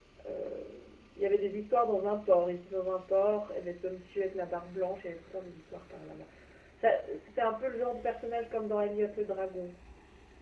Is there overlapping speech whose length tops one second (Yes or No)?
No